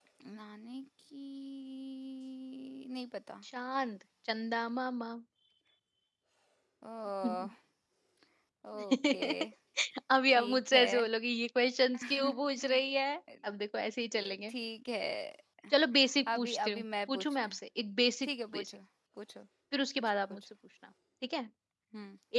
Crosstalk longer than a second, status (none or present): present